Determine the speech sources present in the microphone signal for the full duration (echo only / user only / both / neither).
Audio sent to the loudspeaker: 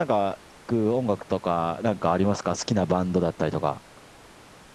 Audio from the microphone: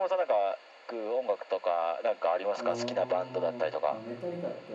both